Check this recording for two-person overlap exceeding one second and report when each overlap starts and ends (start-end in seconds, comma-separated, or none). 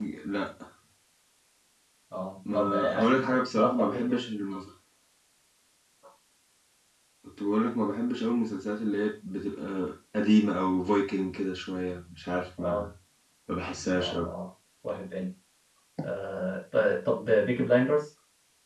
2.5-4.2